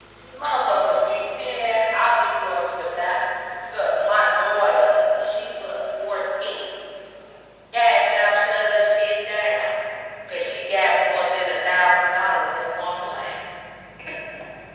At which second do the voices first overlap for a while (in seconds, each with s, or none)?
none